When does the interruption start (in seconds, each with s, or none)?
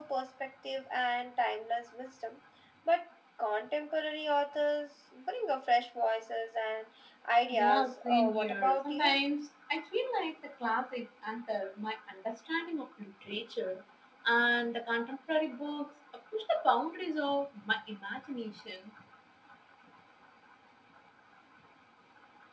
7.5 s